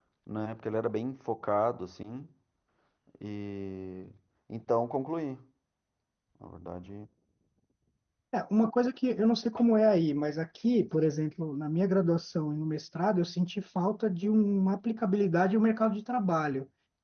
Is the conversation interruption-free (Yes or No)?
Yes